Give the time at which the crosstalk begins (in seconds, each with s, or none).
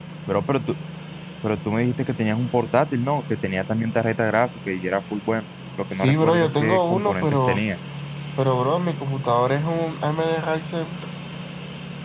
6.0 s